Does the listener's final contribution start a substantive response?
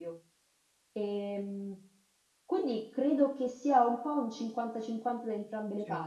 No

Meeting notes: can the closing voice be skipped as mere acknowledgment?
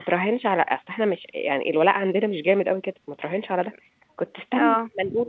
Yes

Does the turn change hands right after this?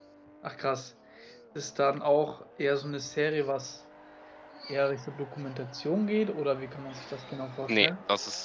Yes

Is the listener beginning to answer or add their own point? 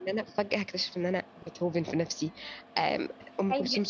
No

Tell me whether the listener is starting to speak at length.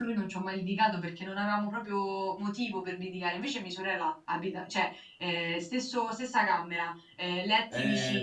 Yes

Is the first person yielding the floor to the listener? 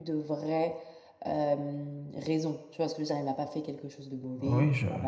Yes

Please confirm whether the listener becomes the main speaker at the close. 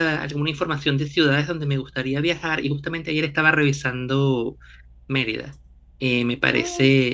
No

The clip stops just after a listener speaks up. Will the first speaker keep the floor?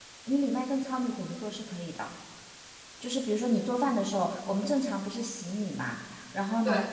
Yes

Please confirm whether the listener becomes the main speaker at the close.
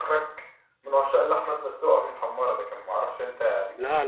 Yes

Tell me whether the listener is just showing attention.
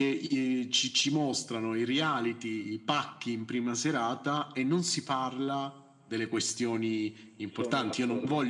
Yes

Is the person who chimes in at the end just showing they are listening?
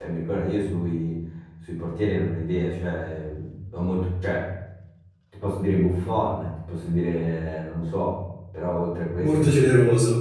No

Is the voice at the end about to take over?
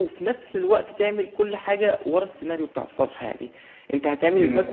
No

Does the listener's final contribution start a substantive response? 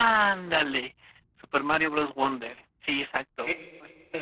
Yes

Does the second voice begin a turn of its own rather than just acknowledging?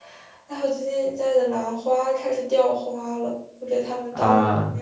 No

